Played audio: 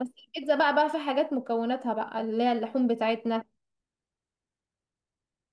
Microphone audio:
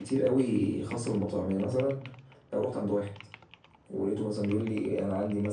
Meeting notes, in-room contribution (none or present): present